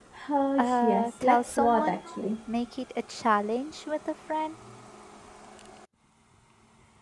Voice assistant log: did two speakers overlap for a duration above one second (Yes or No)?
Yes